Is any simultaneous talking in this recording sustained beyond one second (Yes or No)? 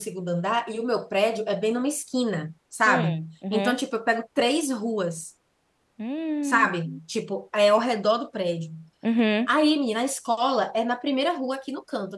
No